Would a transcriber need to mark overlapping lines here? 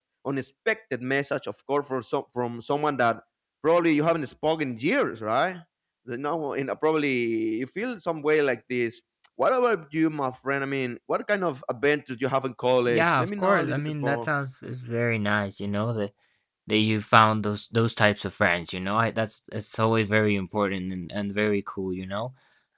Yes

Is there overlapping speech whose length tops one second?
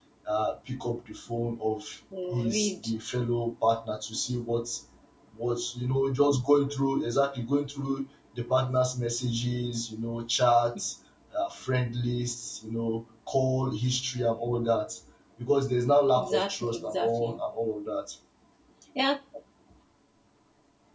Yes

